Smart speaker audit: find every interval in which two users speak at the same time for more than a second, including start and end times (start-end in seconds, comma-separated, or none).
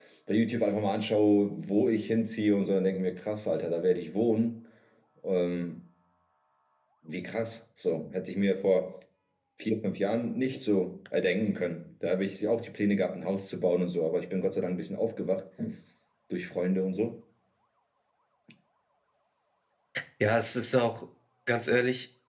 none